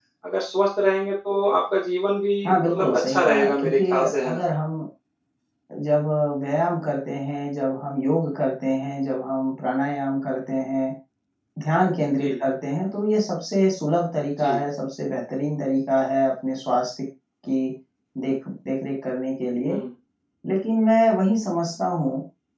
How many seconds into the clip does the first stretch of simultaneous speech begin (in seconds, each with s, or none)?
2.4 s